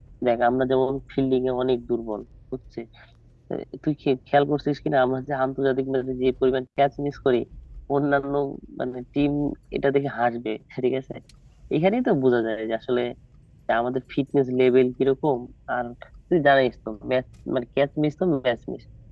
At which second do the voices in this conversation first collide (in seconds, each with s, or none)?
none